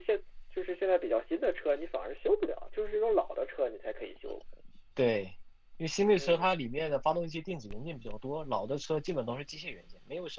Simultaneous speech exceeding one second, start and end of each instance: none

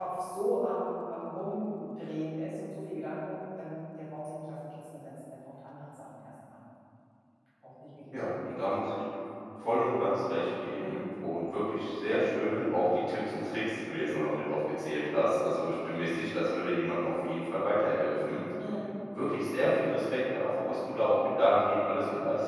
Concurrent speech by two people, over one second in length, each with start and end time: none

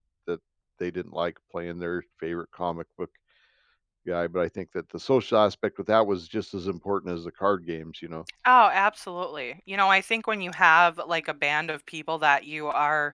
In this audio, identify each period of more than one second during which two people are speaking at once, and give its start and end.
none

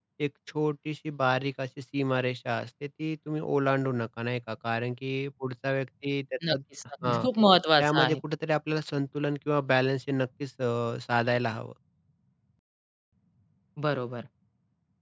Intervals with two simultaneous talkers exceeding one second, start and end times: none

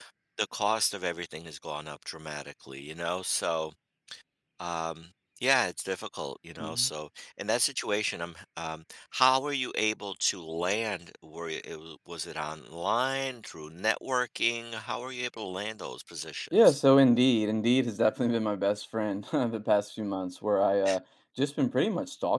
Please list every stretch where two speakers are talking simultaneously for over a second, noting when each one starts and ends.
none

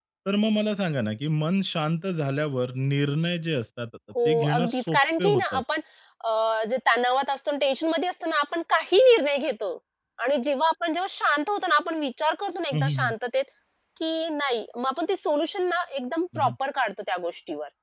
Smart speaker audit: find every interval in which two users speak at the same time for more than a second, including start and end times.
4.2-5.6

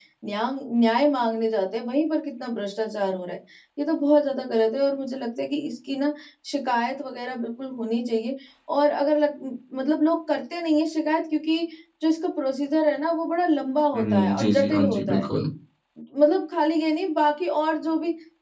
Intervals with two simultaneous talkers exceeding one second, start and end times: 13.9-15.3

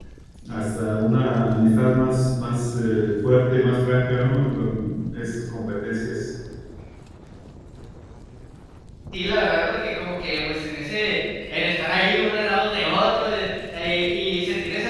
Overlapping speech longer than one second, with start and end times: none

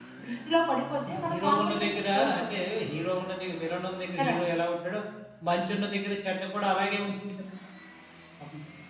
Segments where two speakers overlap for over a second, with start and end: 1.1-2.5

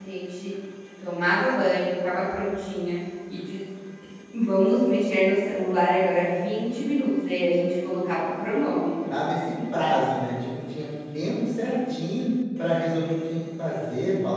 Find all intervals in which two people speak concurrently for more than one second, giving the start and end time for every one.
none

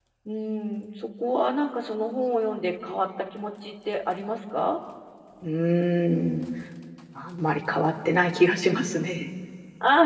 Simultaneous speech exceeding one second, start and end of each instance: none

